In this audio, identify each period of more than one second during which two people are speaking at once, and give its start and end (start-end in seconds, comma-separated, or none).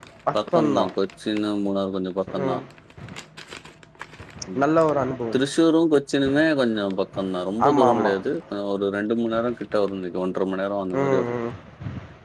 none